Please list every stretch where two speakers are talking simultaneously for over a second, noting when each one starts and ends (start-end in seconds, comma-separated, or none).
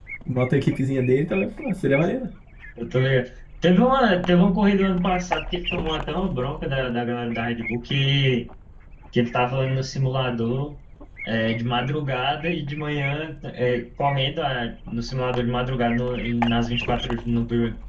none